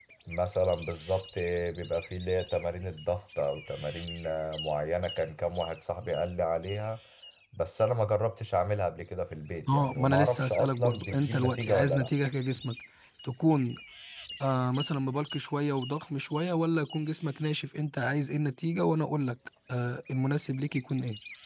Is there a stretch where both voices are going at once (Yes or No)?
Yes